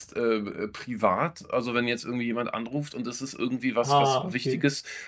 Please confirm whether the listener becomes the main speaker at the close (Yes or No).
No